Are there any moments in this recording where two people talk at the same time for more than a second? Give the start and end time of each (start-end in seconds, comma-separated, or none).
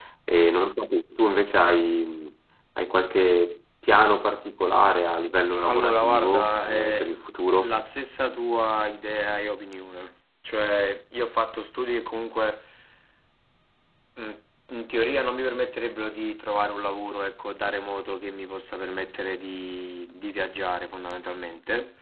5.6-7.1